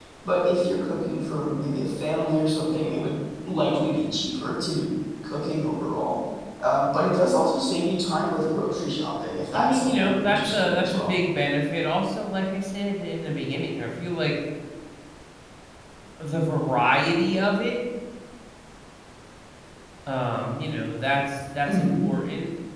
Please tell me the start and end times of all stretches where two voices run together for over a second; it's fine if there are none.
9.5-11.2

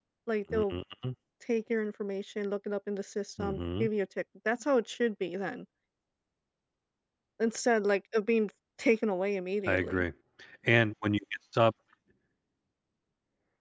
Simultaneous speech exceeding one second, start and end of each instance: none

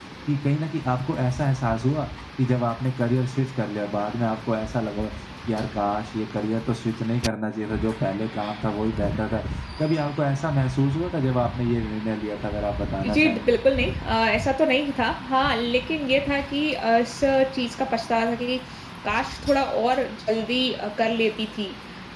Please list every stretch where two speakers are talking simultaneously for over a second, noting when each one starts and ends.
none

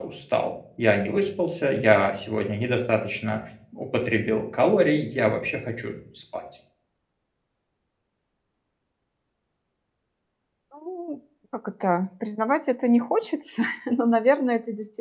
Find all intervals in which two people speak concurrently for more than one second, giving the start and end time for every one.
none

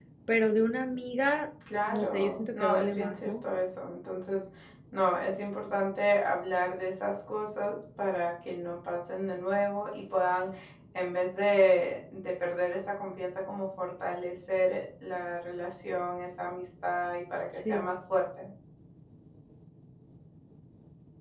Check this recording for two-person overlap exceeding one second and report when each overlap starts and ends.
1.9-3.4

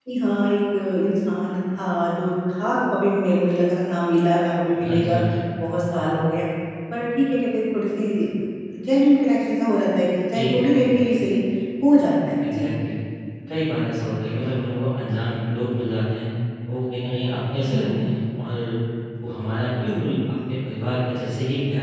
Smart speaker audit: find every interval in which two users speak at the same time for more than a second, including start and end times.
none

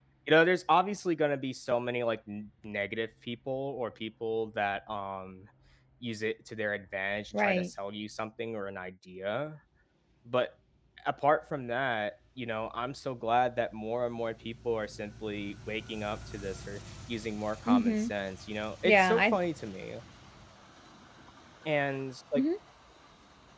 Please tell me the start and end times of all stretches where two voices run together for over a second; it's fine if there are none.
none

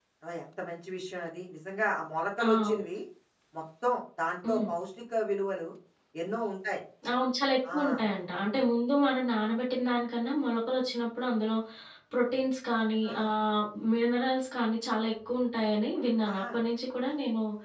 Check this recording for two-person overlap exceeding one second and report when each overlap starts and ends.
none

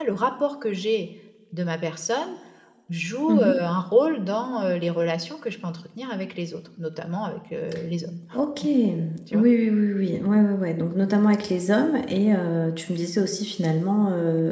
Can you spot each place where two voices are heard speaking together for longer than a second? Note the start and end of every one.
none

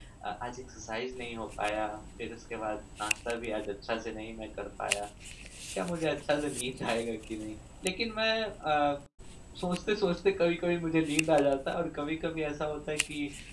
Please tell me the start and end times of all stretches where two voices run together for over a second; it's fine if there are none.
none

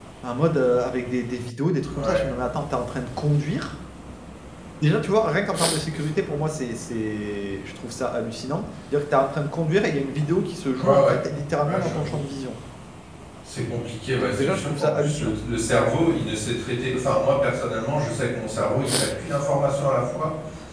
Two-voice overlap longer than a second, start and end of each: 14.1-15.3

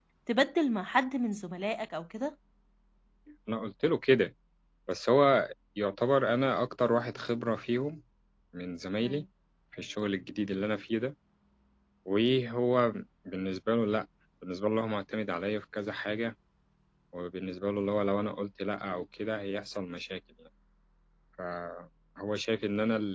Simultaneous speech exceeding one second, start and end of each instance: none

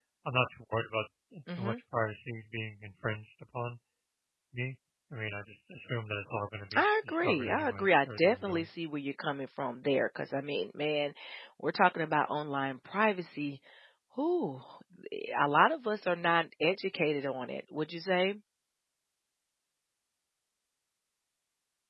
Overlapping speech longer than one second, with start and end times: 6.8-8.7

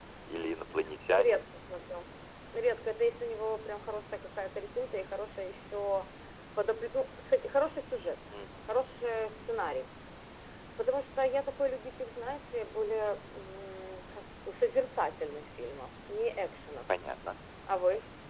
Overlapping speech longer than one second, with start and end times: none

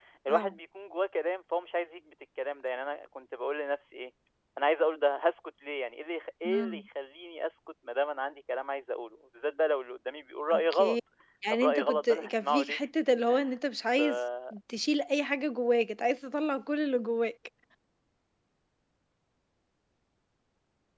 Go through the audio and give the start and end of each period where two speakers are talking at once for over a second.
11.5-12.8

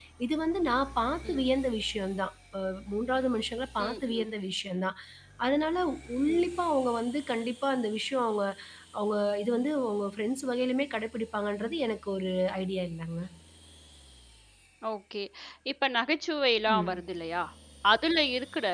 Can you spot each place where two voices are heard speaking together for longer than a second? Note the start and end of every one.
none

